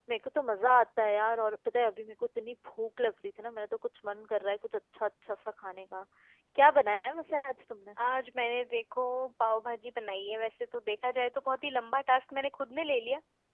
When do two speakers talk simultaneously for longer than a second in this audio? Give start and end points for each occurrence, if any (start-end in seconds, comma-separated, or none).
none